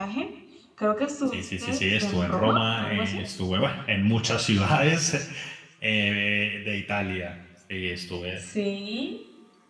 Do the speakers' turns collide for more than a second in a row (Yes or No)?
Yes